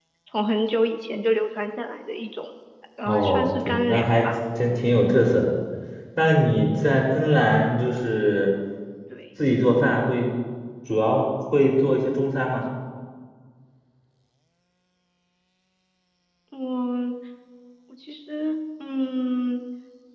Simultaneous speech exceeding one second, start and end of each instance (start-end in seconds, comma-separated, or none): 3.0-4.3